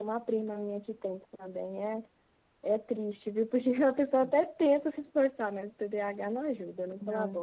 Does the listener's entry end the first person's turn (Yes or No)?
Yes